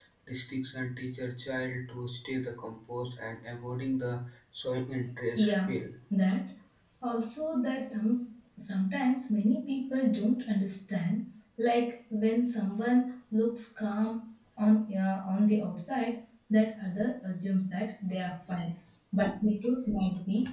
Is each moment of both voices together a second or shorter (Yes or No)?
Yes